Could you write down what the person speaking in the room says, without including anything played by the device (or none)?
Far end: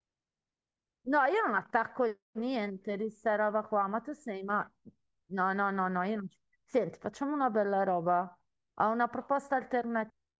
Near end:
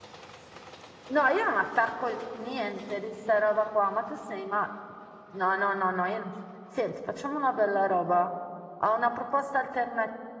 none